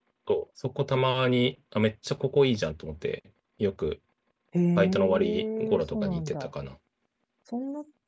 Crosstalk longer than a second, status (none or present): present